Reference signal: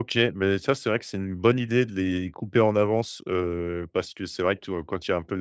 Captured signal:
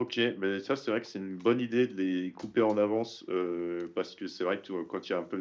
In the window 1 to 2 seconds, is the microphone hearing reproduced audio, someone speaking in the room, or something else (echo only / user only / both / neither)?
echo only